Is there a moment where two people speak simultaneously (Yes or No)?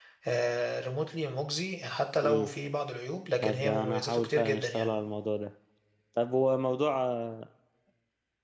Yes